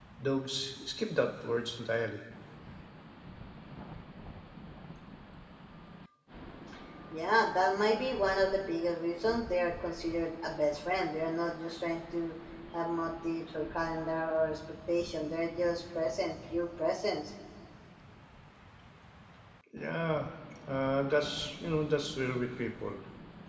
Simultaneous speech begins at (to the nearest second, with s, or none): none